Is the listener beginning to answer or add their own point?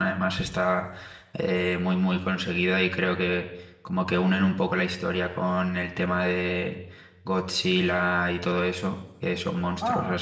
No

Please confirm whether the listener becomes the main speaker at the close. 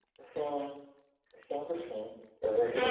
No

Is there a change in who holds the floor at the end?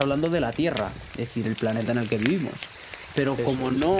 No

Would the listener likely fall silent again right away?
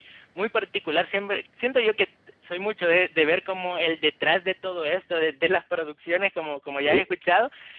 Yes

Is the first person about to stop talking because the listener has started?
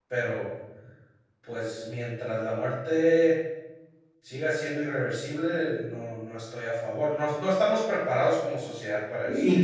Yes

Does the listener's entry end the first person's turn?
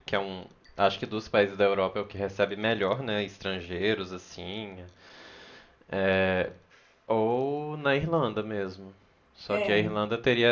No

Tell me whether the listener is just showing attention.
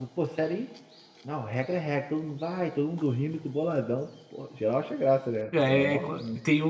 No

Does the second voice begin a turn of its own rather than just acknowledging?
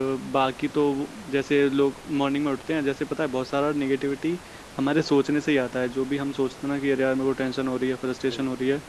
No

